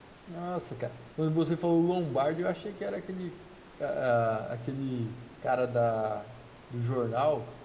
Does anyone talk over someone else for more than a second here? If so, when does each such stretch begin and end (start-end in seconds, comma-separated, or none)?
none